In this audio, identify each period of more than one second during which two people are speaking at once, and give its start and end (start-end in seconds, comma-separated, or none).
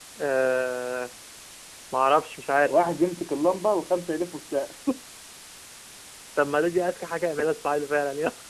none